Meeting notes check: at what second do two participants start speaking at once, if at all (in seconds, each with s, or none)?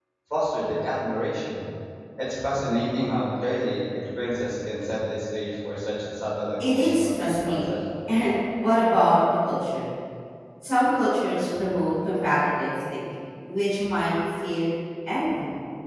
6.6 s